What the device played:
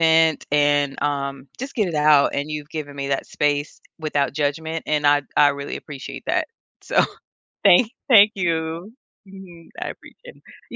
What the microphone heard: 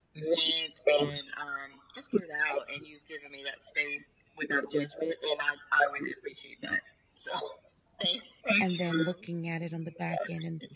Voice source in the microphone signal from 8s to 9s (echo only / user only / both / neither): both